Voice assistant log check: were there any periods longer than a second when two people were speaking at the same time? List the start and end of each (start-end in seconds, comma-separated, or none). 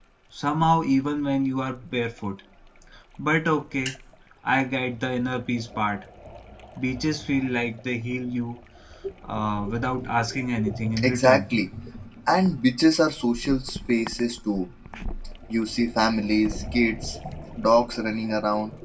none